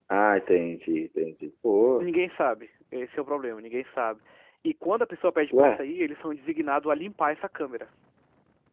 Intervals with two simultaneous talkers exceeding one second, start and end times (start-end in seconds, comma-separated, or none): none